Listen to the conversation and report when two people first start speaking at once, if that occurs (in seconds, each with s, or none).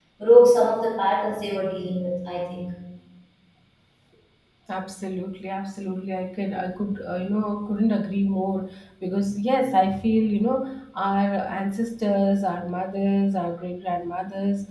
none